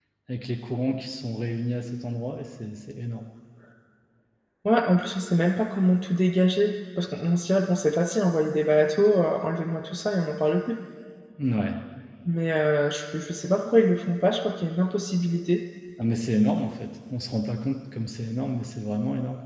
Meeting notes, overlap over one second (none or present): none